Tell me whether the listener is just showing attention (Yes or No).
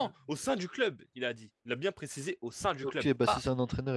No